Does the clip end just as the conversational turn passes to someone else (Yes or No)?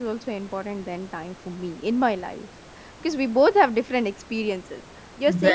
No